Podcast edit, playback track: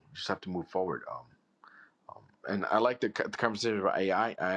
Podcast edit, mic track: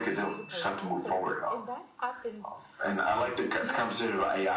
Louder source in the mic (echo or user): echo